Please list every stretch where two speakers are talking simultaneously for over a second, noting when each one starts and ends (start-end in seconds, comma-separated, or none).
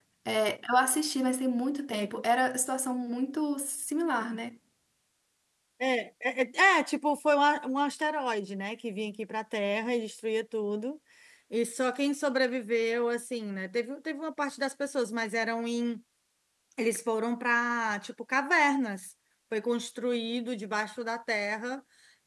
none